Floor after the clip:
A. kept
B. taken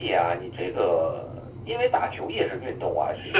B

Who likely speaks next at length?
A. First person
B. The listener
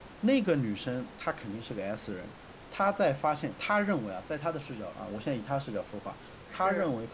A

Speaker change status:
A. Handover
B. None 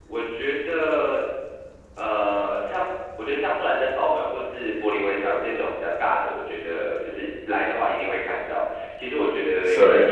B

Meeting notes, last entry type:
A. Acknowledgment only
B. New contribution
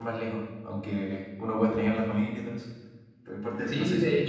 B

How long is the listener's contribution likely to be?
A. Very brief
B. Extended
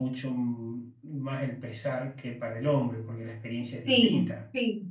B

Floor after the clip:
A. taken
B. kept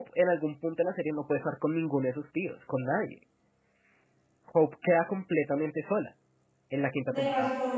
A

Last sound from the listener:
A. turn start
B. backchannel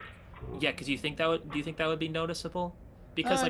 B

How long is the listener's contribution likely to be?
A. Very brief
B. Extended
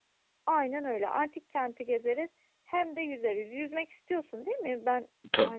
B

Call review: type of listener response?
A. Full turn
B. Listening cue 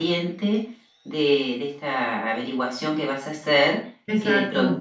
B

